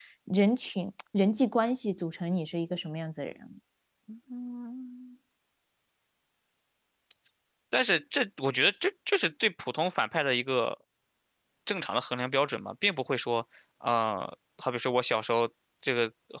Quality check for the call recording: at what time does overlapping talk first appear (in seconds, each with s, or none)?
none